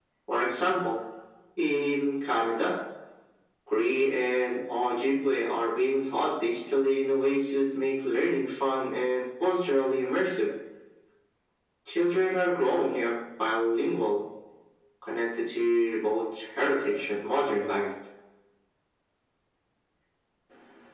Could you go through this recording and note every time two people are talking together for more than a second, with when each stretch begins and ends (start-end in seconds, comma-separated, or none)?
none